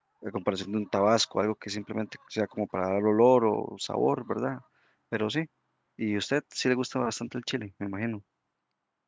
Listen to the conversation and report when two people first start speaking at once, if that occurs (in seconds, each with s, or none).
none